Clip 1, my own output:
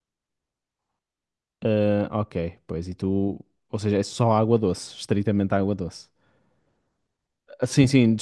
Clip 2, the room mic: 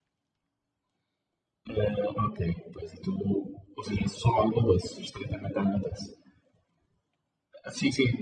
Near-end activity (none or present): none